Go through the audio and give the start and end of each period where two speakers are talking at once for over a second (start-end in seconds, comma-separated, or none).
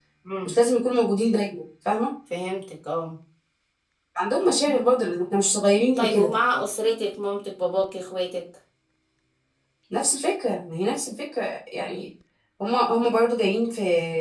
none